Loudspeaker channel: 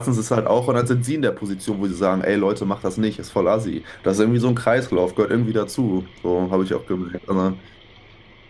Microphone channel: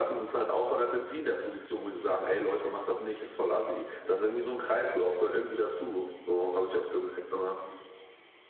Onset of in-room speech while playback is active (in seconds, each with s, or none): none